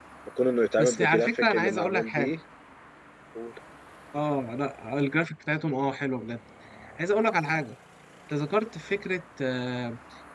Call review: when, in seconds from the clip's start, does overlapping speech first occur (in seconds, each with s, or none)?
0.8 s